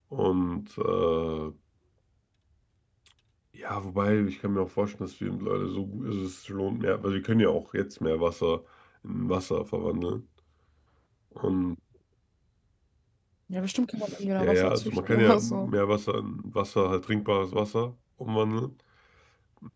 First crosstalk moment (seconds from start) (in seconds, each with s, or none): 14.4 s